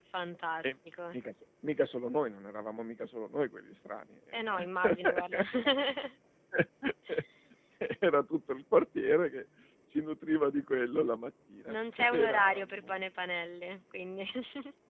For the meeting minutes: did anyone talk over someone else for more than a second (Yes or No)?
Yes